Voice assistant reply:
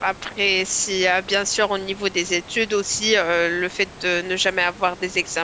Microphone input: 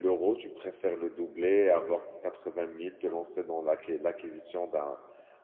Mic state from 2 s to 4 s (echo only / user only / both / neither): user only